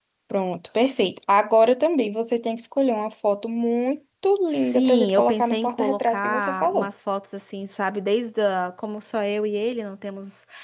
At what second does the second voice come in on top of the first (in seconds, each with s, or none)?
4.5 s